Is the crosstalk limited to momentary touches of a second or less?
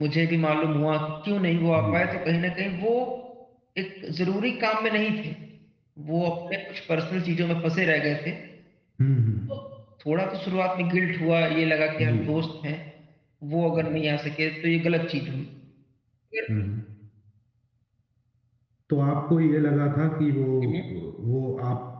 Yes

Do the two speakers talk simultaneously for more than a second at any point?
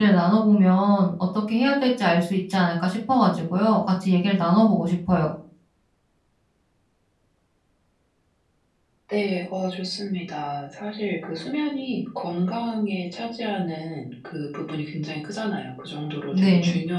No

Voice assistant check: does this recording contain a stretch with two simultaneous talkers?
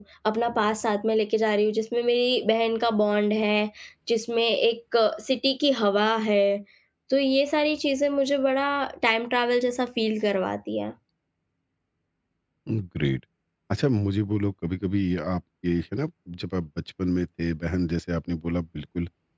No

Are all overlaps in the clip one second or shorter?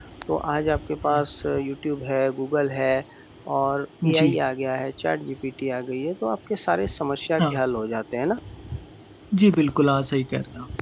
Yes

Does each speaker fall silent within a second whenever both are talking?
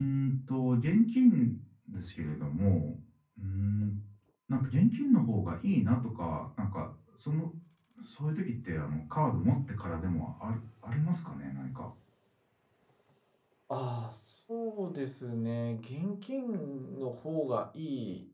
Yes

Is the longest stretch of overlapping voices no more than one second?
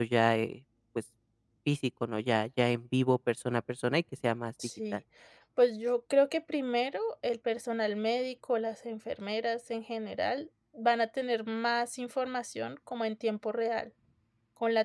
Yes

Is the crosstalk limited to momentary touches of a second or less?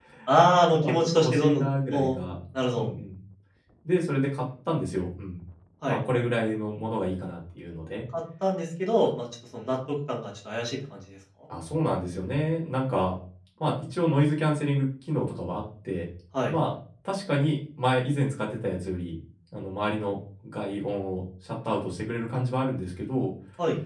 No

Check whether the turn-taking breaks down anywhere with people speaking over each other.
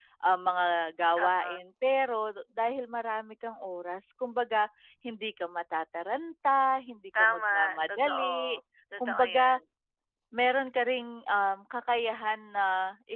Yes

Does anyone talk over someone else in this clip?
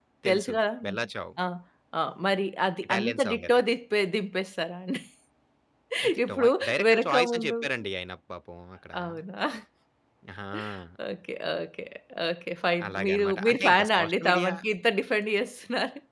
Yes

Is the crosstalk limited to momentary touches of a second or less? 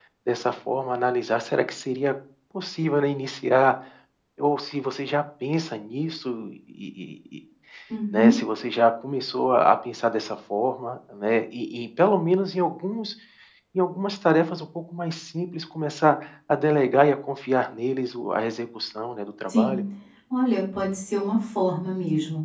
Yes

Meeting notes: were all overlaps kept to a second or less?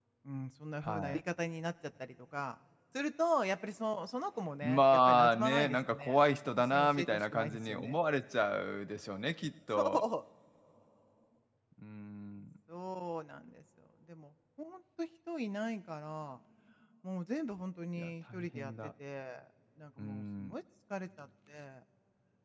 No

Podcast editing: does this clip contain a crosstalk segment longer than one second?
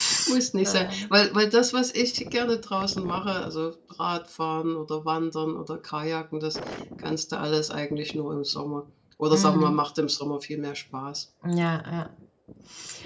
No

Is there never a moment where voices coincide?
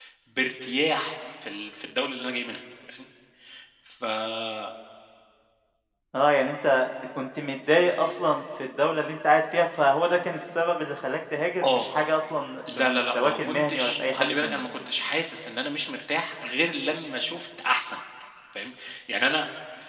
No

